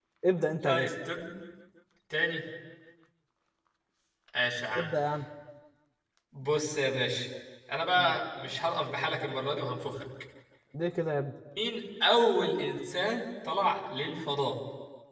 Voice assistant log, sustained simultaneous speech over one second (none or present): none